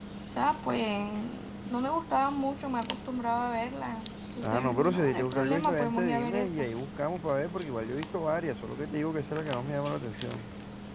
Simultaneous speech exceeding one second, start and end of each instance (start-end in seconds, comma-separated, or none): 4.4-6.7